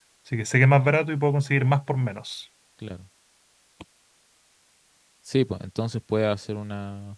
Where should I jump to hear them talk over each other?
none

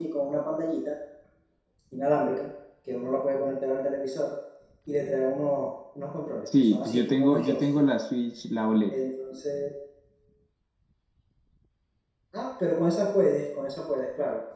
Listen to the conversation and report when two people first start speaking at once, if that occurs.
6.5 s

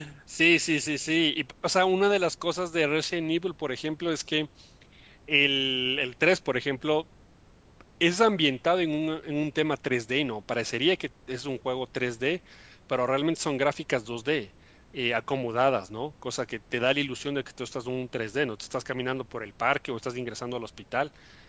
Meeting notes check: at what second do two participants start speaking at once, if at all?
none

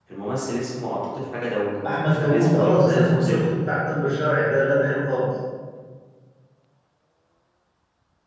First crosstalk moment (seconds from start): 2.1 s

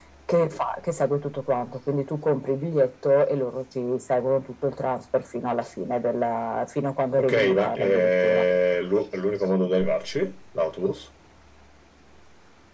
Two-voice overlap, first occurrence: 7.2 s

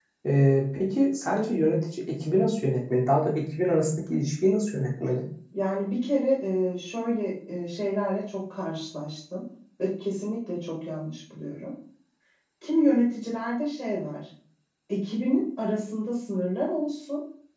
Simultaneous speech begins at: none

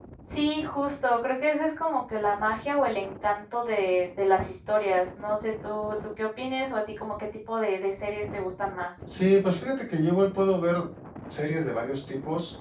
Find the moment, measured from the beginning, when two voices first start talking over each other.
none

